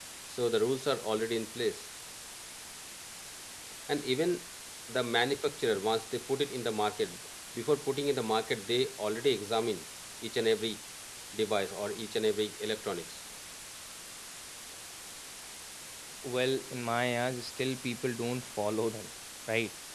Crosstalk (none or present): none